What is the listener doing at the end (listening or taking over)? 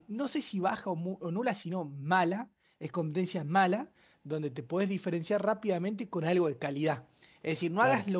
listening